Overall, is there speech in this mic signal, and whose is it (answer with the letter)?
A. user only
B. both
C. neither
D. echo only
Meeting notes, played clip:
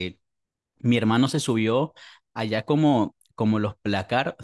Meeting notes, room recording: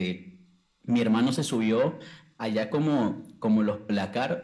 D